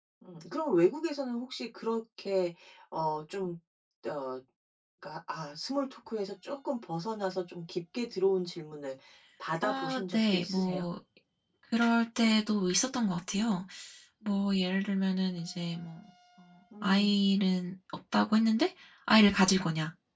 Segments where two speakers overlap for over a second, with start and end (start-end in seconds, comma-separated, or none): 9.6-10.8